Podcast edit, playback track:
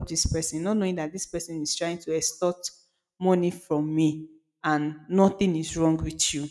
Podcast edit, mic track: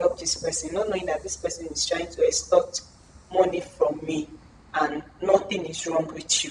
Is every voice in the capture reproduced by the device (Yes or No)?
Yes